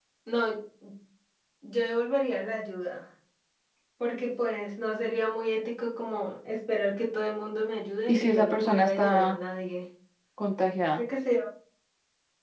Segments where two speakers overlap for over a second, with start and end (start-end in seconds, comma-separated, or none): 8.1-9.4